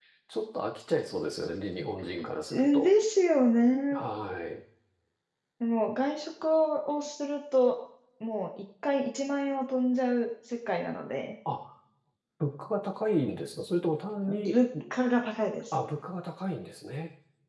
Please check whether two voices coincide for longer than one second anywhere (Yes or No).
No